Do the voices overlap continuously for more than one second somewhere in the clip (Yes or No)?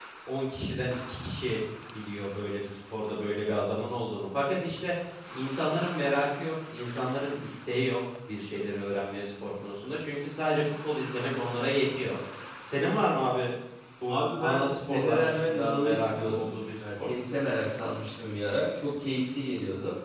Yes